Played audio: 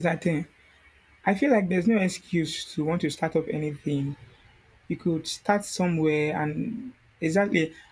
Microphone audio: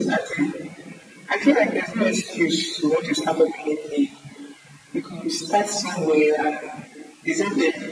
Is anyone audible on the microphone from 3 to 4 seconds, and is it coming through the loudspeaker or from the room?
echo only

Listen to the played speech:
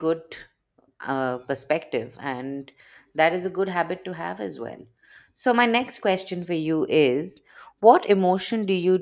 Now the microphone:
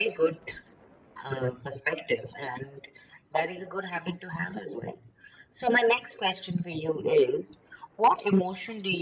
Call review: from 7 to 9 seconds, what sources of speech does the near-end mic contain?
echo only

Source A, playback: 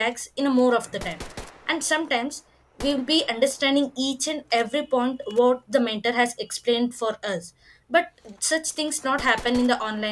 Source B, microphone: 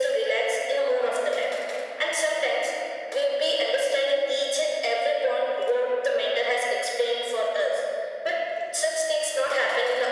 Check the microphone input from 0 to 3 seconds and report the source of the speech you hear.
echo only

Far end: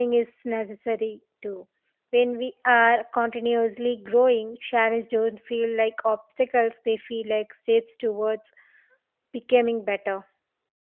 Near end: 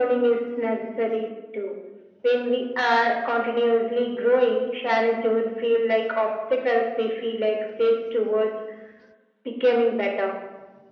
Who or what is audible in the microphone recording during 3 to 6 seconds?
echo only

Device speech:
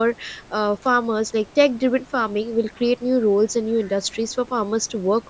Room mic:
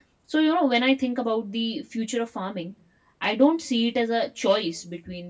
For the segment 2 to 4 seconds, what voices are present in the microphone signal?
user only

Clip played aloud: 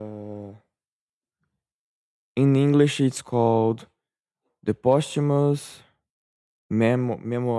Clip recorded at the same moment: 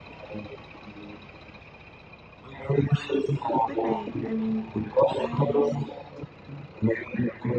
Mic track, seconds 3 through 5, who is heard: both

